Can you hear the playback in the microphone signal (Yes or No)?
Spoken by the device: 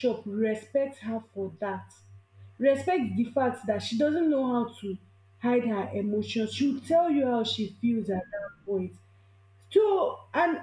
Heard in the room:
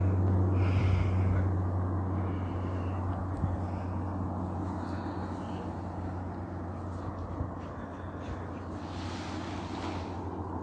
No